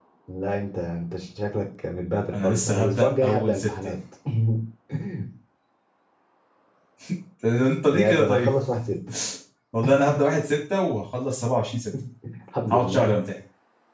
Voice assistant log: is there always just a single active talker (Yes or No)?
No